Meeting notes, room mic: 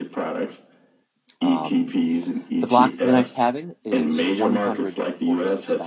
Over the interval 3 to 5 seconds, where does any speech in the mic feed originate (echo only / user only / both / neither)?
both